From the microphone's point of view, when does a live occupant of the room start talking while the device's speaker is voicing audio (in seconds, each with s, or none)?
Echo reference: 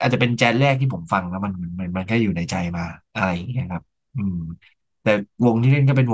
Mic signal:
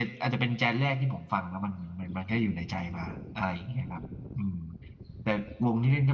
none